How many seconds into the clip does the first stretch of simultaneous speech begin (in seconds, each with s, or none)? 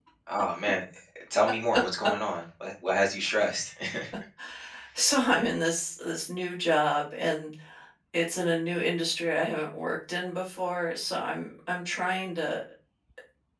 none